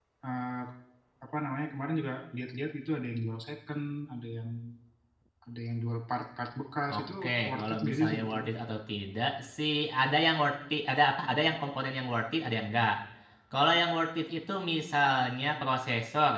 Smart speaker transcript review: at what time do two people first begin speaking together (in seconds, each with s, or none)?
6.9 s